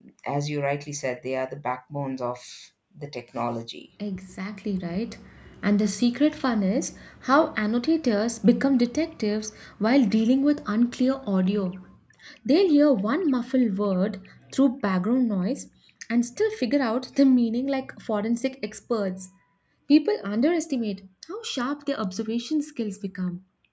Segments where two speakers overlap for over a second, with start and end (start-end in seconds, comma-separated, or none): none